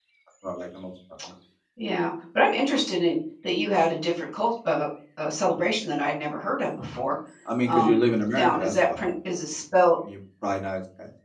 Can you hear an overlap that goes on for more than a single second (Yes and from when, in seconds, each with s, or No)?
Yes, from 7.6 s